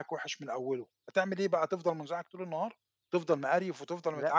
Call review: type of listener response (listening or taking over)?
listening